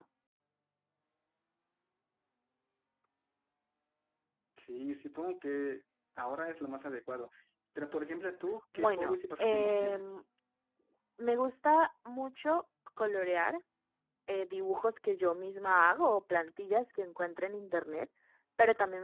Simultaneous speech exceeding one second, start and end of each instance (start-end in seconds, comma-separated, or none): 8.7-10.2